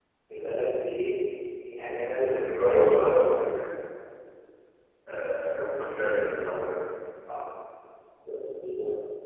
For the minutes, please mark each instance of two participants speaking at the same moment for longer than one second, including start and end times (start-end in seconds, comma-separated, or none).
2.2-3.5